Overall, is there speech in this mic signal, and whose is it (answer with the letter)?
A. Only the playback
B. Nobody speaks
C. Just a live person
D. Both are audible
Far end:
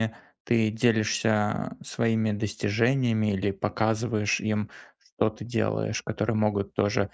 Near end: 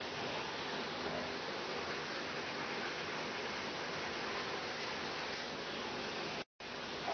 B